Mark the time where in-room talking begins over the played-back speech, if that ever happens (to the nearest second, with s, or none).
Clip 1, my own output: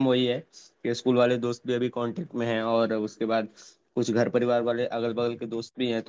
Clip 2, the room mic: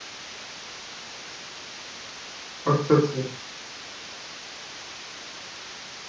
3 s